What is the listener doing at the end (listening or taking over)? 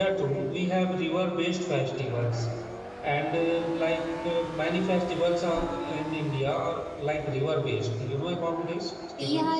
taking over